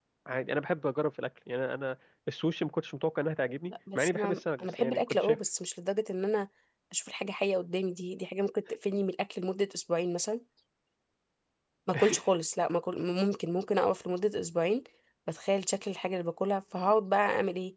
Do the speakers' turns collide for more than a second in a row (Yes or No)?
Yes